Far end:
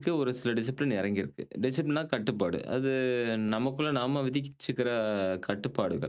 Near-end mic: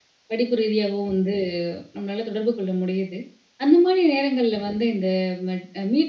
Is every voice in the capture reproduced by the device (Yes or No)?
No